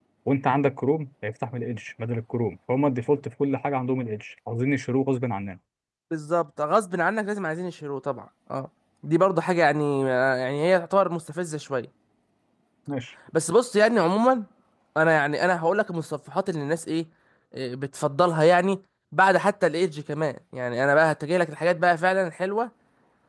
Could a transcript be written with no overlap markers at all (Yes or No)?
Yes